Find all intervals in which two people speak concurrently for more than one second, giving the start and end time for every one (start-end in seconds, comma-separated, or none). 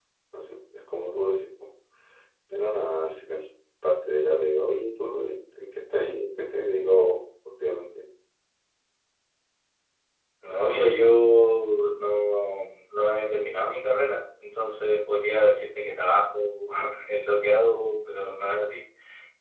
none